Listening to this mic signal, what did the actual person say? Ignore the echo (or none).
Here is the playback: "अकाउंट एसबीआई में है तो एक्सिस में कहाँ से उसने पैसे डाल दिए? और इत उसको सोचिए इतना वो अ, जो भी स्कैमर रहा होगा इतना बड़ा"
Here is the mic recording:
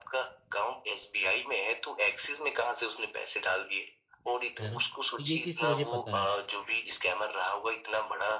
है ना? तो ये चीज़ तो मुझे पता है।